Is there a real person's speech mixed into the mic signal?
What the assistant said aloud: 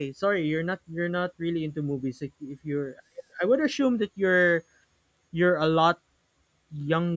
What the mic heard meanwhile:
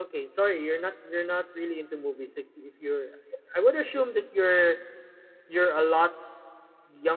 No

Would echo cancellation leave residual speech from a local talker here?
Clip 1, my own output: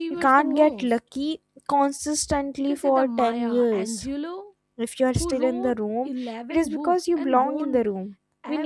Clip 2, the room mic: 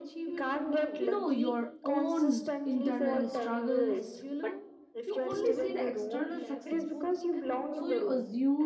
Yes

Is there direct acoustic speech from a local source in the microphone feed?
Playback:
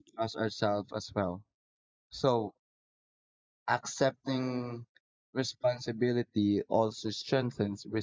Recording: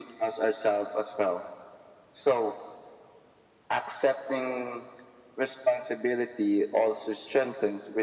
No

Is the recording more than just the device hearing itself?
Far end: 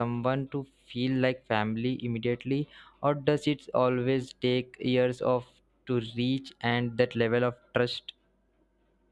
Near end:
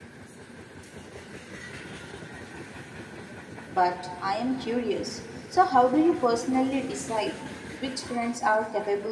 Yes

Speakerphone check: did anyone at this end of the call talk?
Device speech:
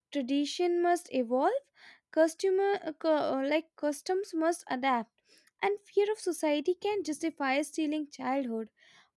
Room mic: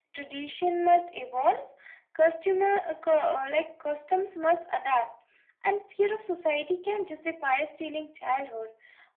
No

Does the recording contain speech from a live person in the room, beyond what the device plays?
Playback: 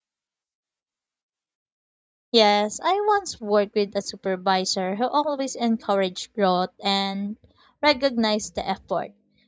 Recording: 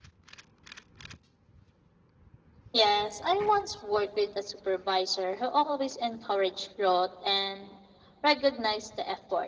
No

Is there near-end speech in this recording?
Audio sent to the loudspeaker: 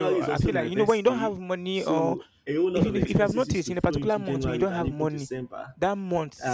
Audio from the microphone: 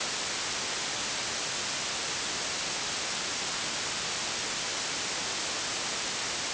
No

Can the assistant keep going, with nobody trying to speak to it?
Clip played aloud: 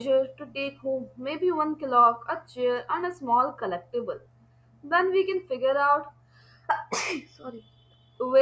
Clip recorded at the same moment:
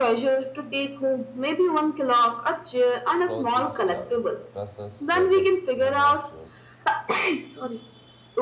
No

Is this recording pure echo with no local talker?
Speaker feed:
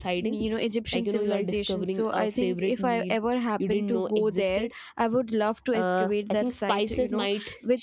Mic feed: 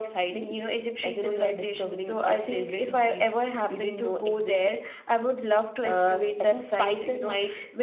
Yes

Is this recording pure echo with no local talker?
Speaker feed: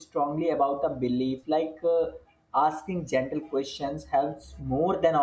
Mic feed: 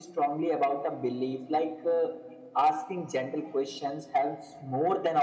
Yes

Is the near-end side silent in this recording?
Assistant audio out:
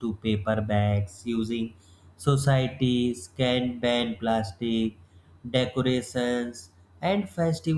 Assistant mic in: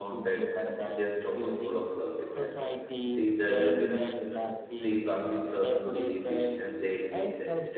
No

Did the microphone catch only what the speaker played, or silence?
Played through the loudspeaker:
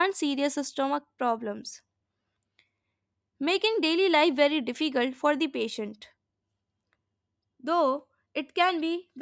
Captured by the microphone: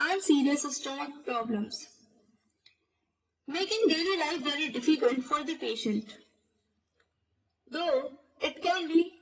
Yes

